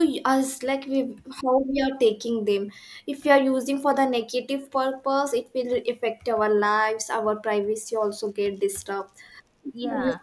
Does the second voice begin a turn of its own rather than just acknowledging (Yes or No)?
No